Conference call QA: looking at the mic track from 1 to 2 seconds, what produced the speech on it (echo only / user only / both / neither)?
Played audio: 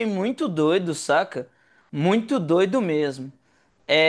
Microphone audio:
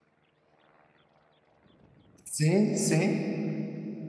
neither